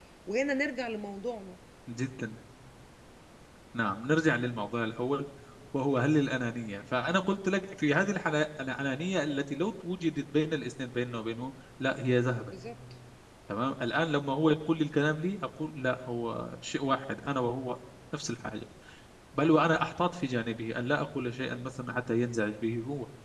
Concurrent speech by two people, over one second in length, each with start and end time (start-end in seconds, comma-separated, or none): none